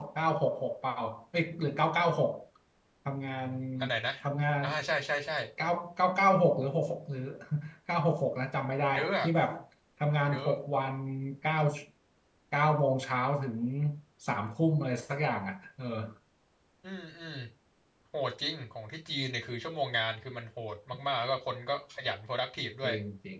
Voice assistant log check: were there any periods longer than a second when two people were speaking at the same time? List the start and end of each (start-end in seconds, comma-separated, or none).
none